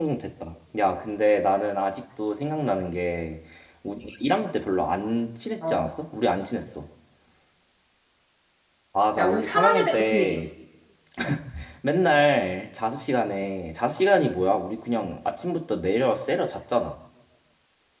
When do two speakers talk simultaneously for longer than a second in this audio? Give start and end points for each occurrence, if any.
9.2-10.4

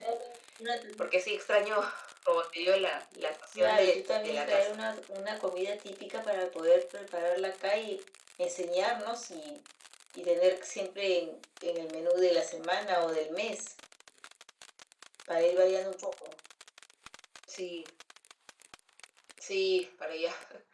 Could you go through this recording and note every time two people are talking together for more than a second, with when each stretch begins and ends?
3.5-4.8

